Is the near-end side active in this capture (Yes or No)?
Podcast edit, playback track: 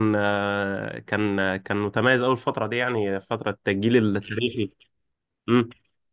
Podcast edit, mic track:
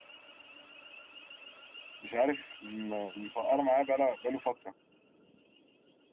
Yes